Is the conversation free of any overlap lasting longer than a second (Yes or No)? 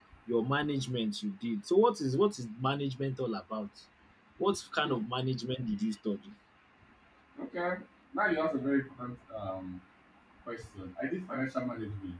Yes